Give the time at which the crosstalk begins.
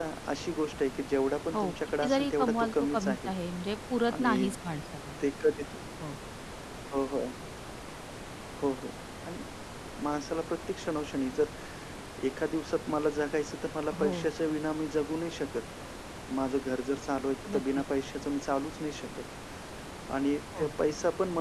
1.5 s

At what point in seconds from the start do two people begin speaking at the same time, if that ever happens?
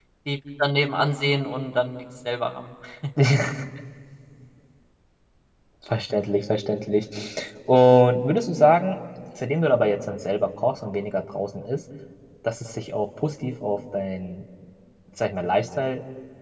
none

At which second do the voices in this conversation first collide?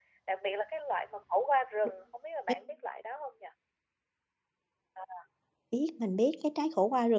none

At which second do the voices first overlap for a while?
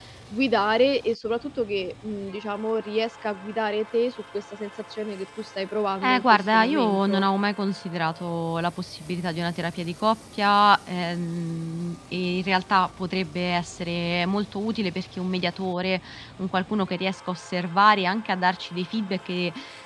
6.0 s

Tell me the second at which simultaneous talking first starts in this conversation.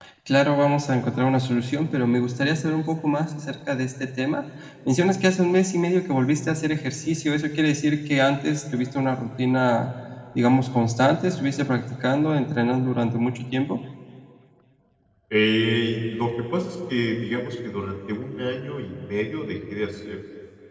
none

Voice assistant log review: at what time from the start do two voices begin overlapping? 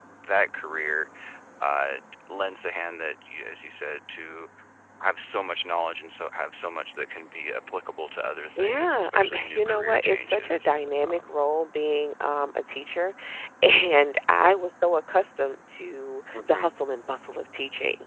8.6 s

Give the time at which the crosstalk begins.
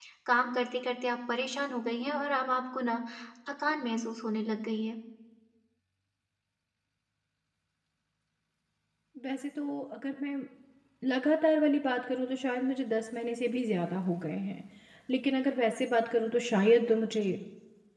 none

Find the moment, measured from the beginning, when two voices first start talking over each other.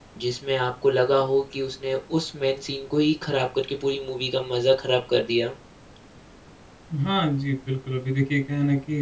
none

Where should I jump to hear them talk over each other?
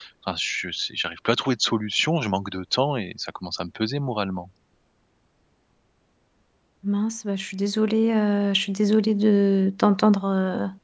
none

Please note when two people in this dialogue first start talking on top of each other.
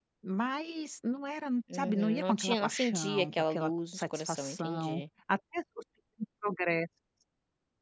1.7 s

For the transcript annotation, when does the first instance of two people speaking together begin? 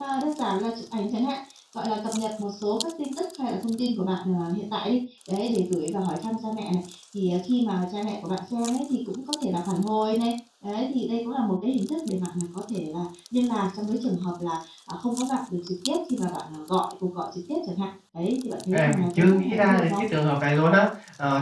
18.7 s

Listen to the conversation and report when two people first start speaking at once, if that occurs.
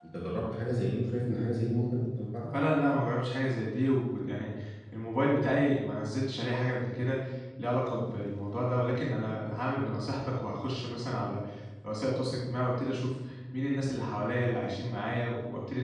none

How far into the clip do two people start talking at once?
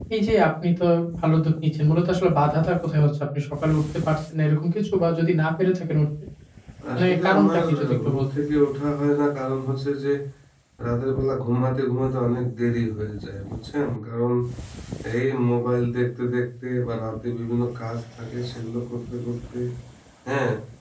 7.0 s

